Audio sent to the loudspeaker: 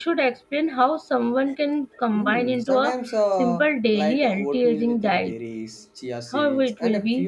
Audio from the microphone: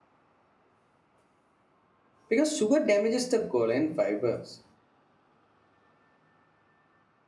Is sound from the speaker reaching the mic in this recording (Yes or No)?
No